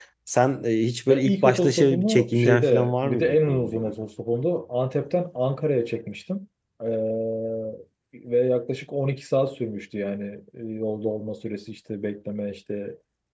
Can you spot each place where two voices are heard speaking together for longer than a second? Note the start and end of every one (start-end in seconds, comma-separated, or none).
1.1-3.9